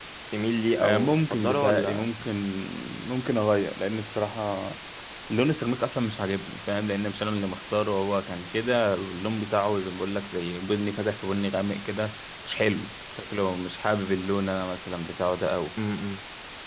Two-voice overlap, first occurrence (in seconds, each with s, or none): 0.8 s